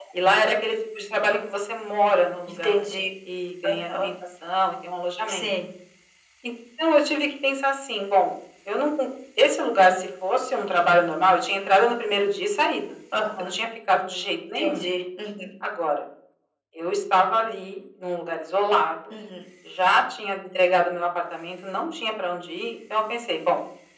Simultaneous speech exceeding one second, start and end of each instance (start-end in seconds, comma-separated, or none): none